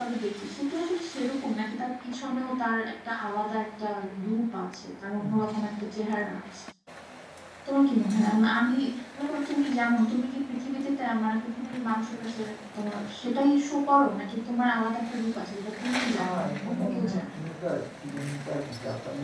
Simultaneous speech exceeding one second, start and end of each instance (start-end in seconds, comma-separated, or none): 16.2-17.4